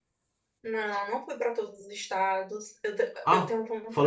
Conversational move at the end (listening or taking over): taking over